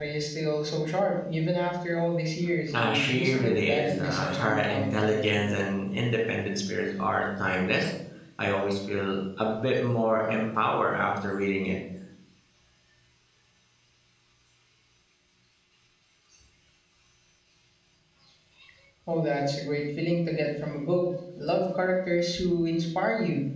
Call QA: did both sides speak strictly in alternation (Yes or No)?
No